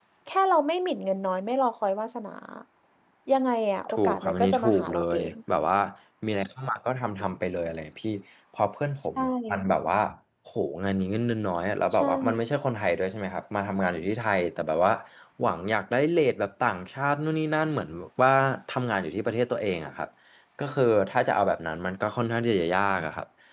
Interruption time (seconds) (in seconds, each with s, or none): 3.9 s